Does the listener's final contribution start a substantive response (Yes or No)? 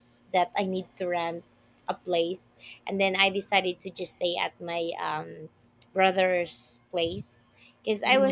No